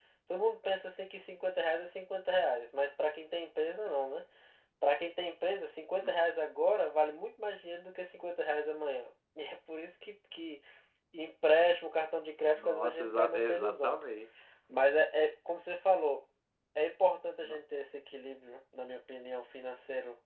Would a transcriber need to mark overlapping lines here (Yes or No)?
Yes